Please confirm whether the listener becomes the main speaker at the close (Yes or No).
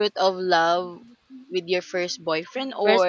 No